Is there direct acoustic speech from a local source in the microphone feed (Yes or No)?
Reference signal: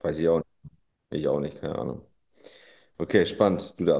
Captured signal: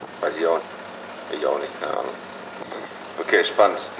No